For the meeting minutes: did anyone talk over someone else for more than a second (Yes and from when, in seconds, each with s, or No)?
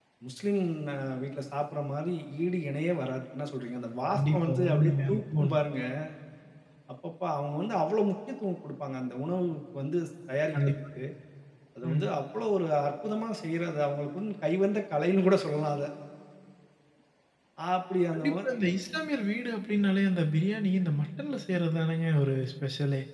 Yes, from 4.0 s